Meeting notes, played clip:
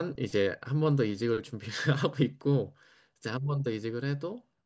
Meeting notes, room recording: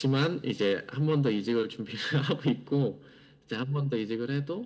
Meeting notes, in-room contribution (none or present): none